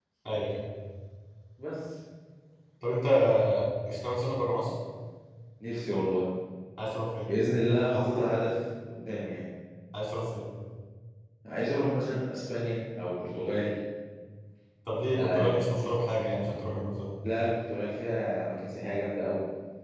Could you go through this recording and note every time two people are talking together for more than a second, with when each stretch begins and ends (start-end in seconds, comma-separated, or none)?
none